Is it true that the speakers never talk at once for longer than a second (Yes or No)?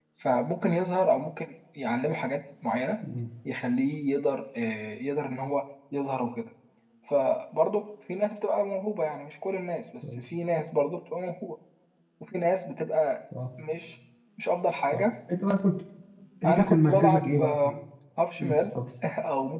No